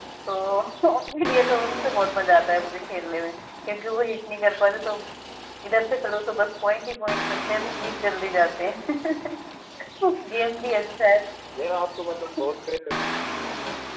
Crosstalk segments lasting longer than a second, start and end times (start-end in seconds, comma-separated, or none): none